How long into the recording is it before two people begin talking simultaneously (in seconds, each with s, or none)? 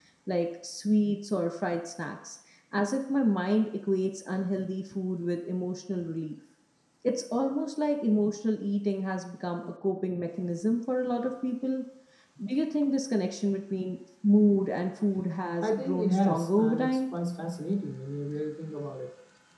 15.6 s